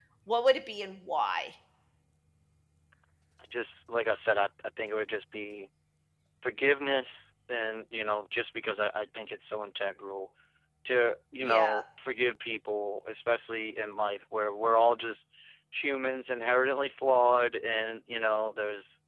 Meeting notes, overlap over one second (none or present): none